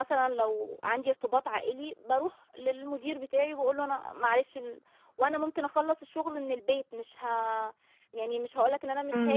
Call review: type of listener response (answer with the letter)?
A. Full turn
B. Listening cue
A